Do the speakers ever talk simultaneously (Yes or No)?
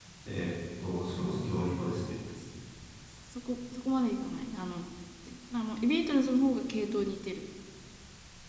No